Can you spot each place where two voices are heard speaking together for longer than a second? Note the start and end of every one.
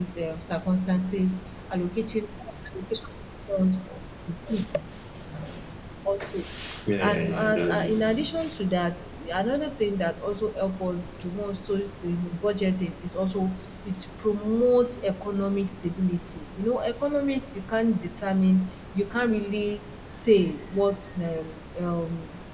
7.0-8.5

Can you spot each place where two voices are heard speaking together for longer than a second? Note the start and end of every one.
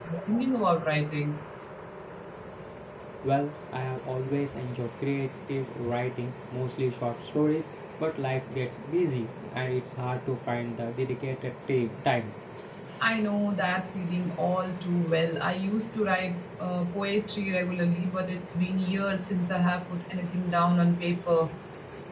none

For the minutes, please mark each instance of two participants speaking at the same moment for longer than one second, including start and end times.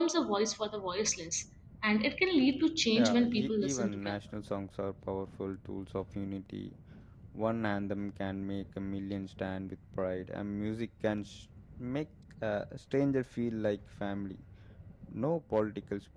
3.0-4.2

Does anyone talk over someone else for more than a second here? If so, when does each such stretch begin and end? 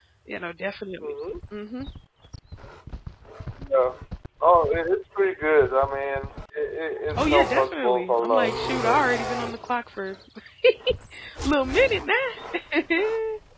7.1-9.0

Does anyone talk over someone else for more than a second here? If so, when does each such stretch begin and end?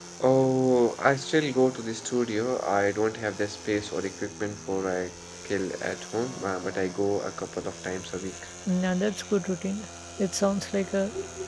none

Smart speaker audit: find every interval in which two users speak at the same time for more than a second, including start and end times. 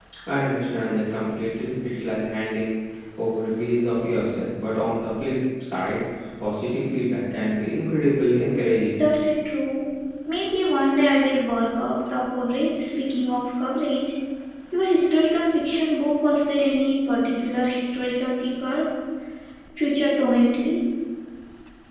none

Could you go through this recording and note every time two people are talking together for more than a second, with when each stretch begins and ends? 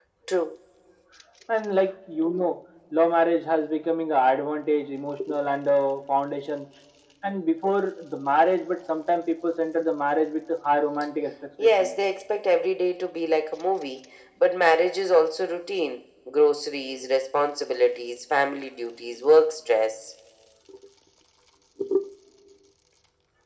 none

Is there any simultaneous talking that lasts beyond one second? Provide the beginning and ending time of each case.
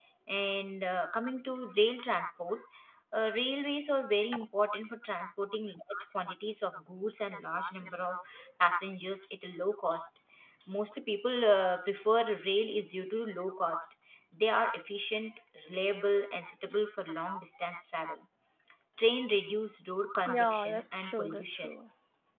20.3-21.7

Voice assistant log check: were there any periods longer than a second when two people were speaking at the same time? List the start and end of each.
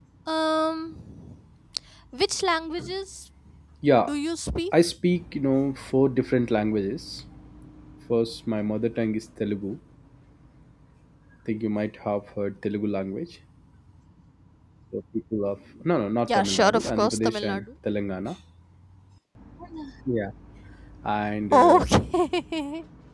16.3-17.6

